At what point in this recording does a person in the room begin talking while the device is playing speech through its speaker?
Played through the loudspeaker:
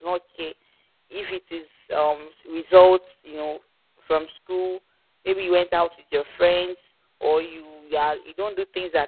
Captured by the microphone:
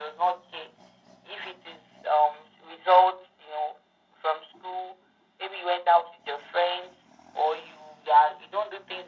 none

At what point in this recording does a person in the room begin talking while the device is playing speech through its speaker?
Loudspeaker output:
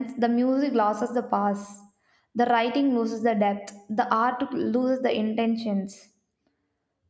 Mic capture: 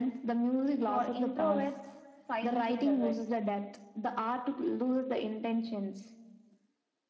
1 s

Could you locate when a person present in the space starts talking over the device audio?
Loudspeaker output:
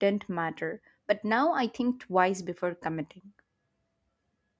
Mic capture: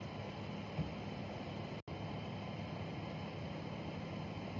none

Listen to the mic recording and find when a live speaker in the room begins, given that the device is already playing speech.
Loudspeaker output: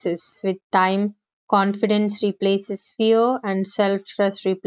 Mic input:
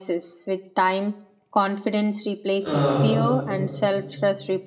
3 s

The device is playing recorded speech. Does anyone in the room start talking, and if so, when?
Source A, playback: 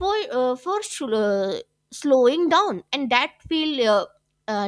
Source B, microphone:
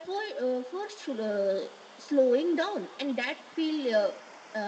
none

